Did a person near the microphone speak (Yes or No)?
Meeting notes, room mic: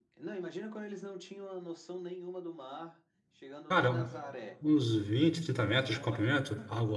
Yes